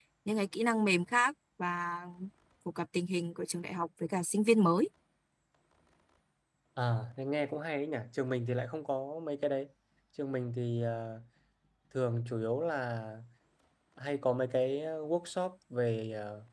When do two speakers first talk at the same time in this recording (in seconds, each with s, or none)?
none